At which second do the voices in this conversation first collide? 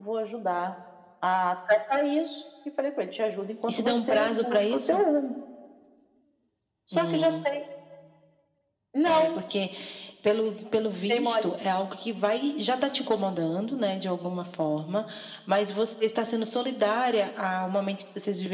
3.7 s

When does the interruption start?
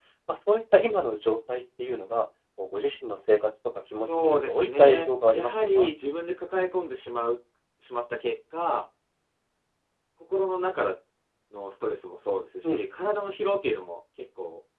3.9 s

